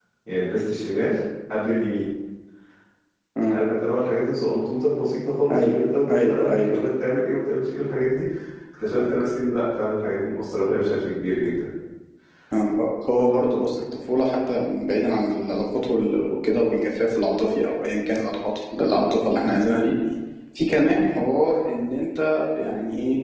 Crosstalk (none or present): present